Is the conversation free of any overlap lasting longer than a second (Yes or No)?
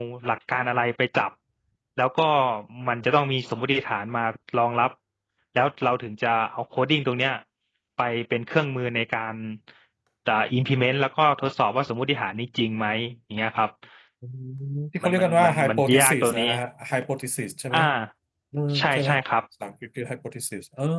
No